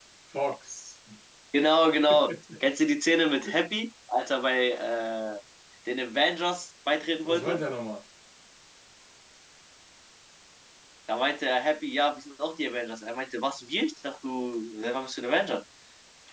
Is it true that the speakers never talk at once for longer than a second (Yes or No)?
Yes